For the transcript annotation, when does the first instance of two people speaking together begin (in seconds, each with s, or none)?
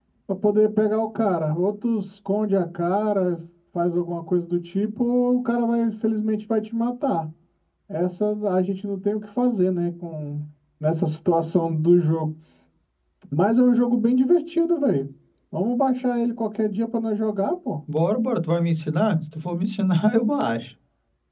none